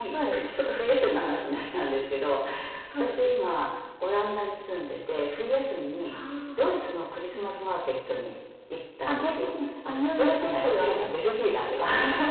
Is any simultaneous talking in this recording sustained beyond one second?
Yes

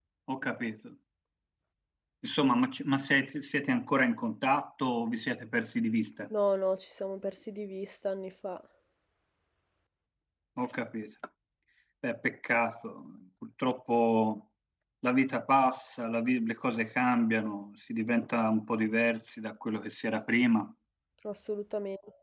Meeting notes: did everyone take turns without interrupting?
Yes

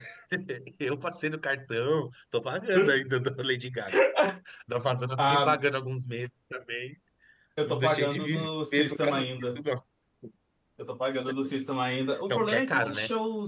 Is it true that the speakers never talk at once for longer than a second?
No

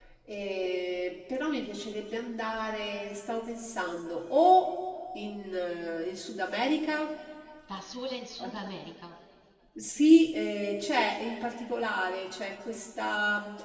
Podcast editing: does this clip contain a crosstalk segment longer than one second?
No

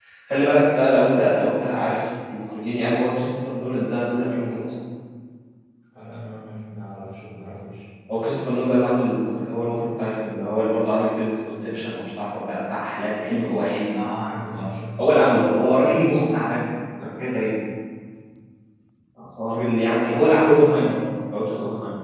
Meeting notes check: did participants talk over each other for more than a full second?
No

